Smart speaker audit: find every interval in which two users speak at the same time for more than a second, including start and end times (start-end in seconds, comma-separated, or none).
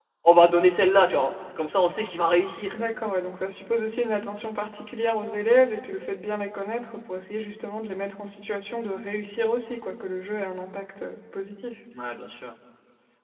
none